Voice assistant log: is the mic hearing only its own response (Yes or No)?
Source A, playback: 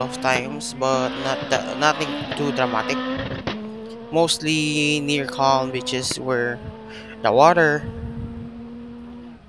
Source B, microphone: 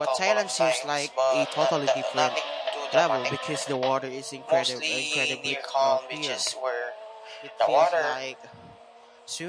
No